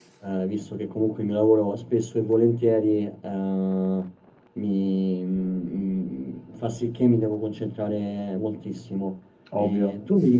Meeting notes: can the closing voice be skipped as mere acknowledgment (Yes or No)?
Yes